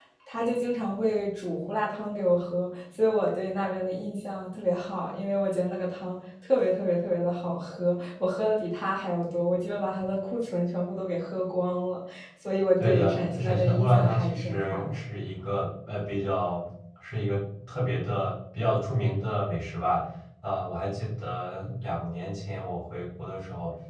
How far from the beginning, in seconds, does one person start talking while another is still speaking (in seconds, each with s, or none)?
12.8 s